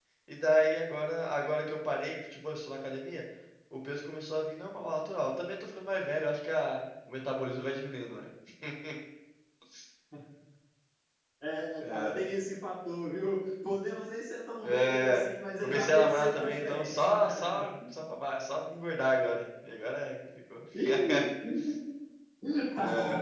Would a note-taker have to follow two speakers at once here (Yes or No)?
Yes